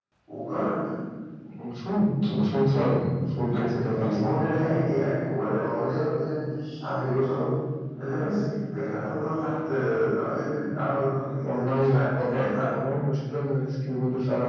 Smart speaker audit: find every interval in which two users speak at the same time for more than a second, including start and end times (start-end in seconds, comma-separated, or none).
11.4-12.6